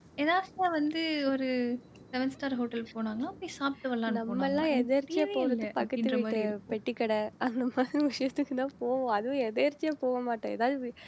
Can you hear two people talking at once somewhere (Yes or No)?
Yes